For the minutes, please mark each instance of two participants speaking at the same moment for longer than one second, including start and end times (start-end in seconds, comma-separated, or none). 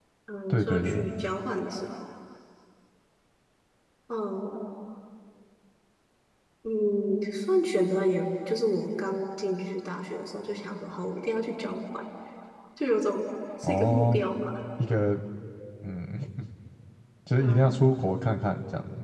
none